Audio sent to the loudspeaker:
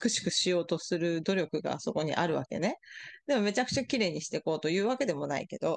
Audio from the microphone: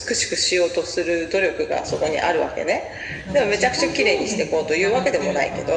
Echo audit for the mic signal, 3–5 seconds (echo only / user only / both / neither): both